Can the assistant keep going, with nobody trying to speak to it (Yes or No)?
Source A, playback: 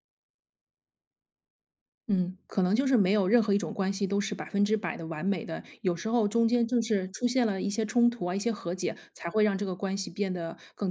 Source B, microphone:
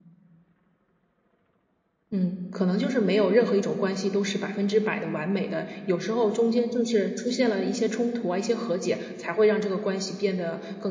Yes